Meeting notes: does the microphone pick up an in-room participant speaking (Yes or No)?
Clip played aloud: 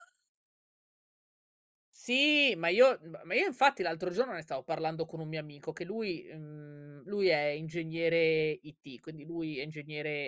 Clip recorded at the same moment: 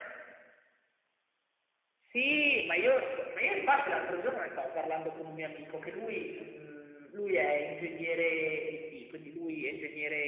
No